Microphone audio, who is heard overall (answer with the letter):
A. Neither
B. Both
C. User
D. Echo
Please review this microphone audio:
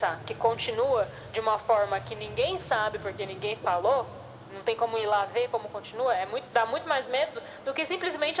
D